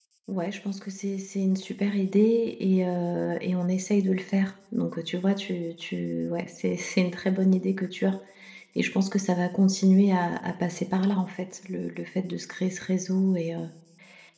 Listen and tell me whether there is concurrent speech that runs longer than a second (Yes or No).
No